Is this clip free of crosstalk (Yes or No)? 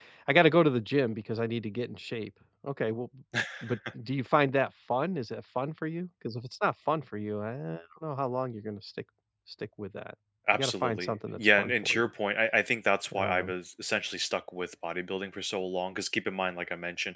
No